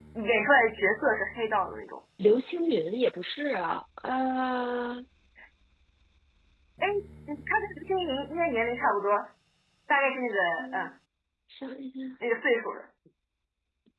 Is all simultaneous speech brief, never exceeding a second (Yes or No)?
Yes